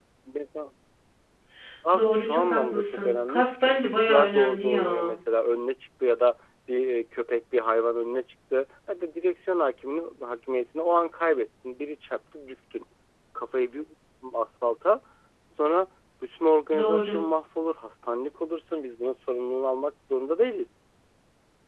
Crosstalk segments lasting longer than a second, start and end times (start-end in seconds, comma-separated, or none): 2.0-5.1